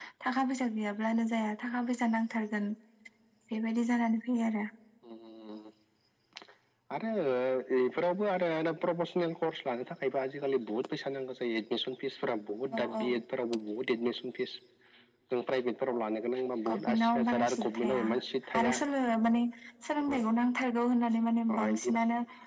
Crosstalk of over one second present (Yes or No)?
Yes